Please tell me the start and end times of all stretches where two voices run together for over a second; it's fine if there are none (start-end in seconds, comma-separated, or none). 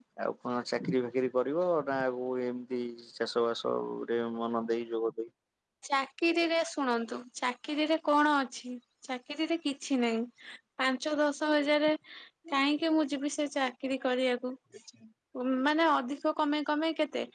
none